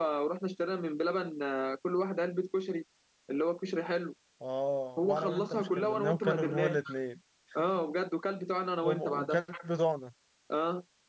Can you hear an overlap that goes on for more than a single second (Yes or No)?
Yes